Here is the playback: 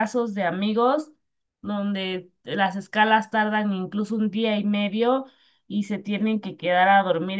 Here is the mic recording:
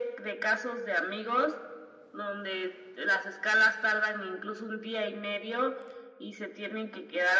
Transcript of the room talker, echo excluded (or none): none